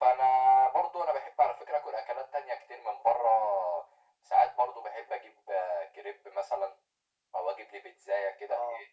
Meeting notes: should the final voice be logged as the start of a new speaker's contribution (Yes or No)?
No